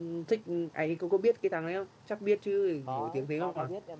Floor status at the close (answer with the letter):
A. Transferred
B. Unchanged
A